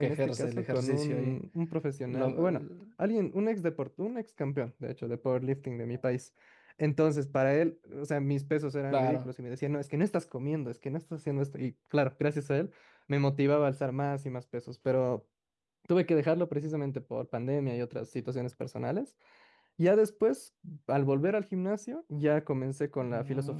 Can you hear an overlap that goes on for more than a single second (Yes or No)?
Yes